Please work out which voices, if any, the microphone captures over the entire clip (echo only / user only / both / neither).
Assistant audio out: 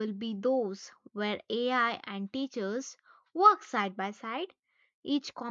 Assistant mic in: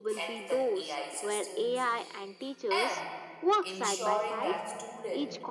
both